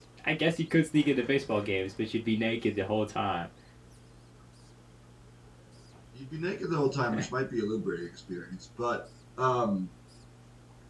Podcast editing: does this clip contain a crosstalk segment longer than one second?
No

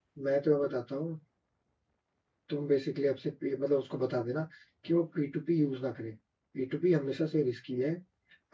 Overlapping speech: No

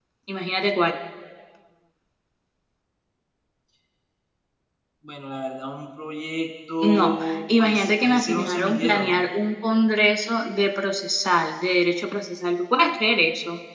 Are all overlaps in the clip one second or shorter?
No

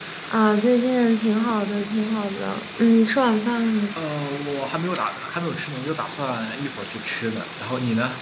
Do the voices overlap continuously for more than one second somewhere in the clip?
No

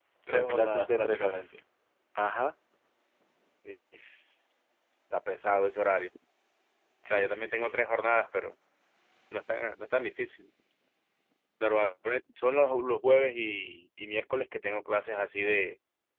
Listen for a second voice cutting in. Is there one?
Yes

